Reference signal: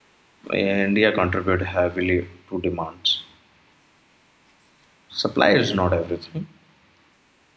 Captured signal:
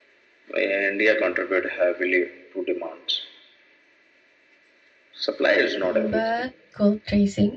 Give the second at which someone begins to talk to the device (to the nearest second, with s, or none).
6 s